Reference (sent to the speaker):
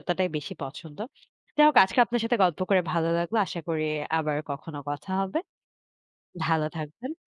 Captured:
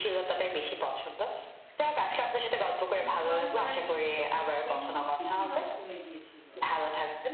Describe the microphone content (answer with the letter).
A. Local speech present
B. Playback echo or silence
A